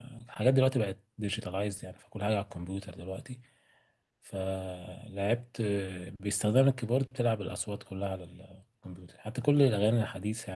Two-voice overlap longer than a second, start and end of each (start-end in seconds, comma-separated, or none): none